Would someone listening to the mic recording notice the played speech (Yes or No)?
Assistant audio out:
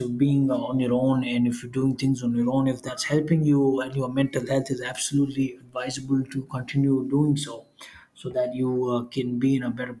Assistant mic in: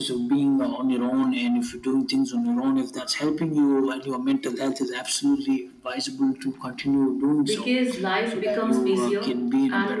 Yes